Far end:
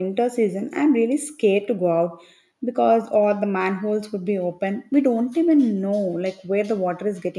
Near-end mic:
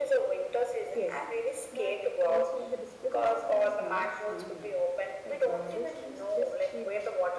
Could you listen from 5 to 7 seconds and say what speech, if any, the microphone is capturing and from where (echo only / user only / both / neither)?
both